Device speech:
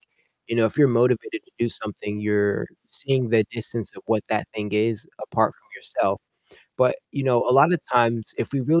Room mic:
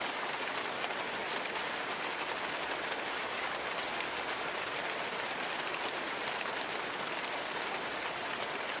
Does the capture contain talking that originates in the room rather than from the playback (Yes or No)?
No